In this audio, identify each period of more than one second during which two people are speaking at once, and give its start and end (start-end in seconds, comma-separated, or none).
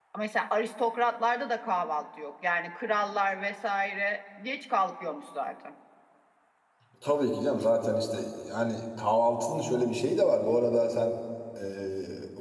none